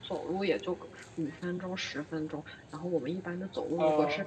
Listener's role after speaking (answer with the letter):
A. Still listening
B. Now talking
A